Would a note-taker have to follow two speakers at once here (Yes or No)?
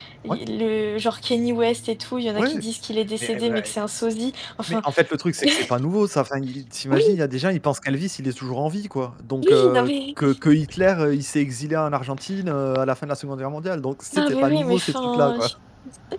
Yes